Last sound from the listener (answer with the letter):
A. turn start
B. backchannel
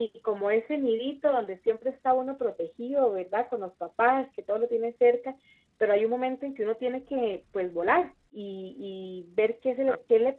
B